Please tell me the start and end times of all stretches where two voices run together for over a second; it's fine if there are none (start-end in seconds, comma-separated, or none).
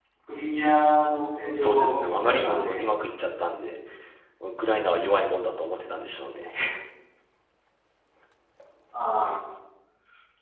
1.6-2.8